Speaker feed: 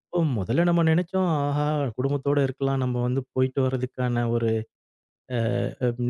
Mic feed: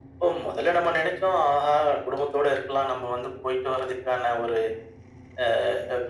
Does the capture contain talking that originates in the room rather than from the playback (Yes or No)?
No